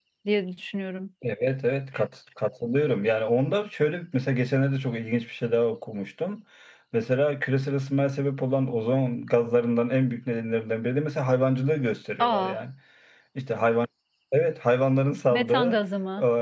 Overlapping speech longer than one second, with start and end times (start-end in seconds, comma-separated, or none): none